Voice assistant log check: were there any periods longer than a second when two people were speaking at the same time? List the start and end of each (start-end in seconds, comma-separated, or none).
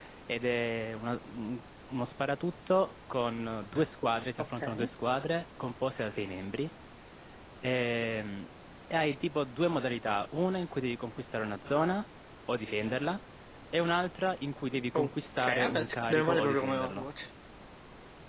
14.9-17.1